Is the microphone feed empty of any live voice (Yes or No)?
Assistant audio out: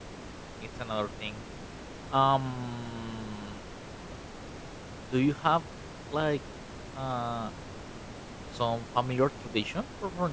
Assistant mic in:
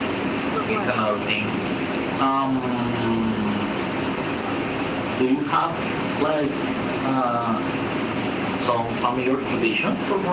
No